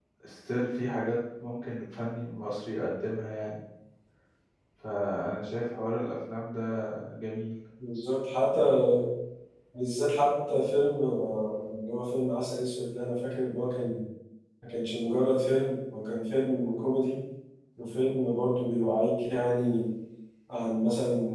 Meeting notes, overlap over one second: none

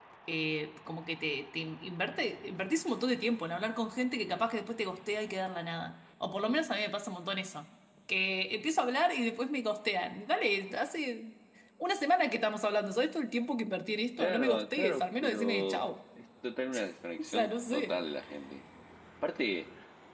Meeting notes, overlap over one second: present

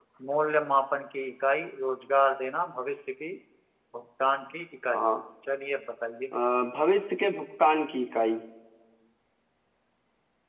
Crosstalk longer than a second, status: none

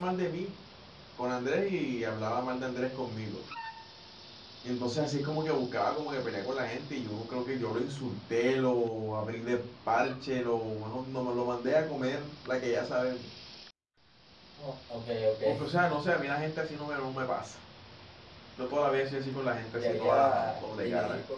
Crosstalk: present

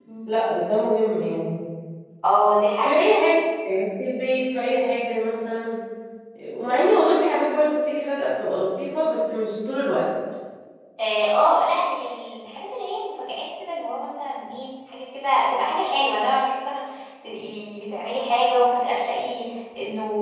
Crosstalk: none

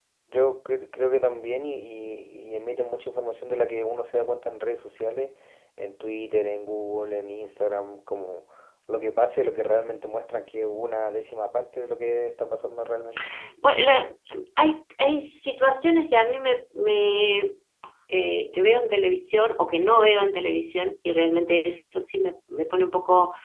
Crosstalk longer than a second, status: none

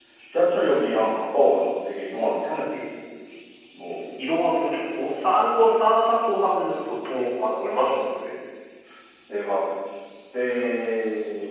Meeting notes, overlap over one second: none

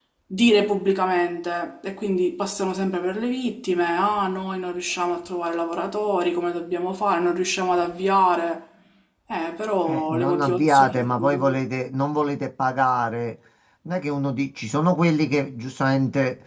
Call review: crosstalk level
present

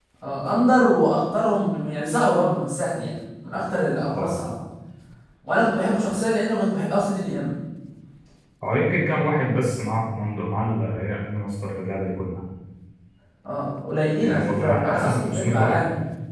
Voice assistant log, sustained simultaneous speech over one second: present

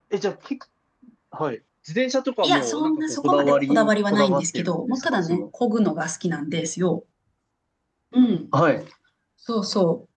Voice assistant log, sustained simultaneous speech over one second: present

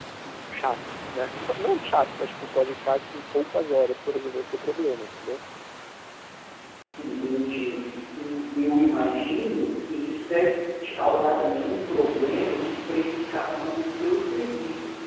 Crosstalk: none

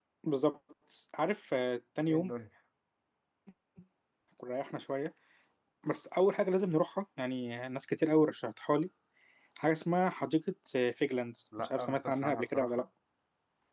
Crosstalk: present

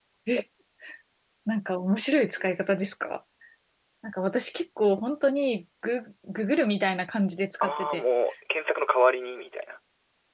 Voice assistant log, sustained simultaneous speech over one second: none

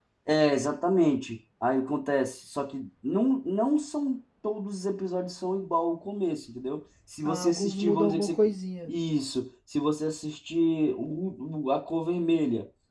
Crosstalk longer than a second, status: present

